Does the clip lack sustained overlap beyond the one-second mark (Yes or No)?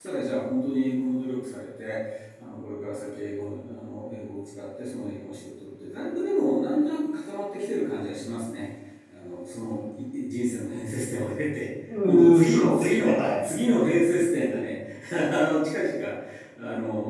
No